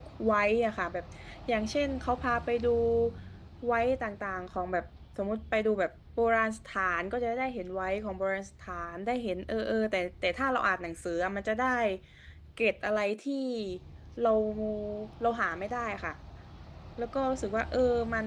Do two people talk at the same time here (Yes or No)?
No